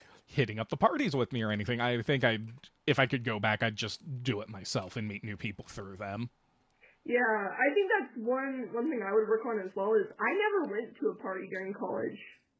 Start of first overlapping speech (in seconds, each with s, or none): none